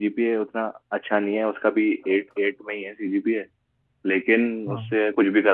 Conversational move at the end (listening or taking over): listening